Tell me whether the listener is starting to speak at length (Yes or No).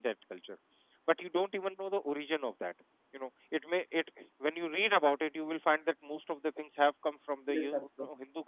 No